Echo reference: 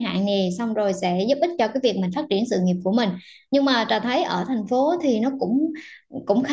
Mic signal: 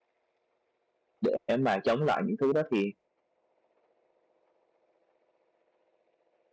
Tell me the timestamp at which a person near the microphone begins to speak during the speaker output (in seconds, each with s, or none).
1.2 s